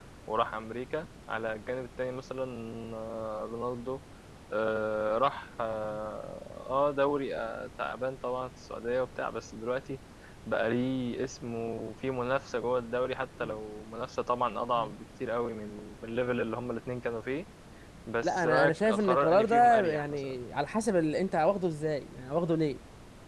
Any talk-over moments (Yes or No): Yes